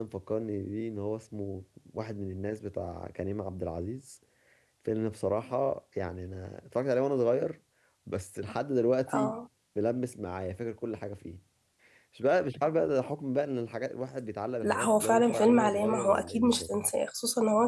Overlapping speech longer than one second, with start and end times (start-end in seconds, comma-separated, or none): 14.6-16.7